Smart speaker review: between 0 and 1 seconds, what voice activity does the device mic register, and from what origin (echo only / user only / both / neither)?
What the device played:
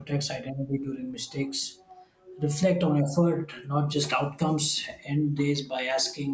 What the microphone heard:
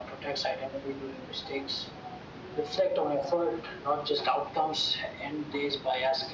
echo only